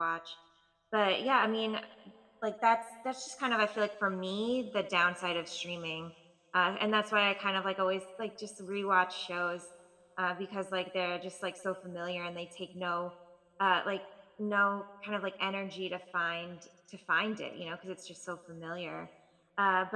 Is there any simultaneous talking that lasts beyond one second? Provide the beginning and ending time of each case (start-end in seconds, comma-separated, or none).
none